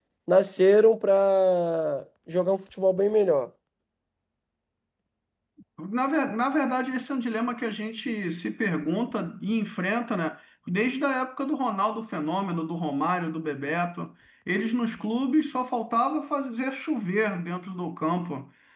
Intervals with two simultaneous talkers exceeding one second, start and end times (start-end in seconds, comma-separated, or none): none